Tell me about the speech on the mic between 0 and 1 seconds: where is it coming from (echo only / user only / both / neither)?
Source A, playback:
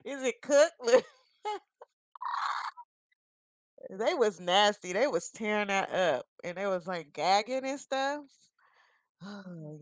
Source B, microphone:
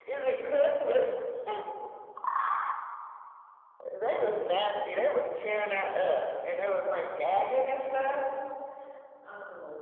echo only